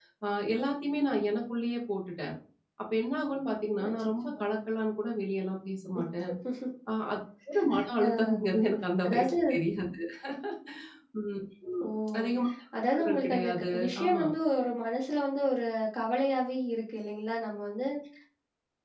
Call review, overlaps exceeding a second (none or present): present